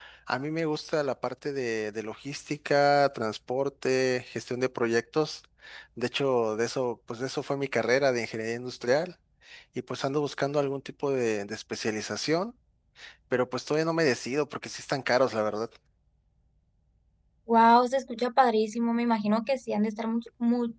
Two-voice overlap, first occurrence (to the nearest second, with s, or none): none